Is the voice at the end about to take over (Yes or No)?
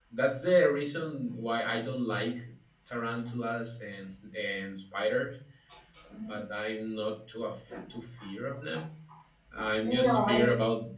No